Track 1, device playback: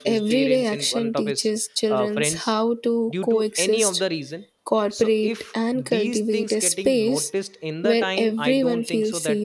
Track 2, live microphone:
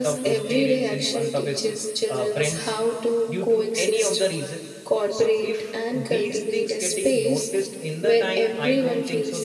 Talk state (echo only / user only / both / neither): echo only